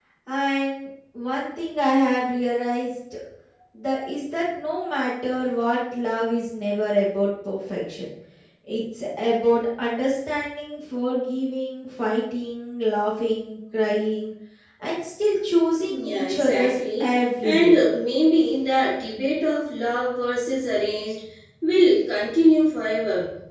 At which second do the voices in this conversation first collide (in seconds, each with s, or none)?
15.9 s